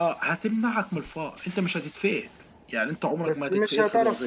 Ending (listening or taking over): taking over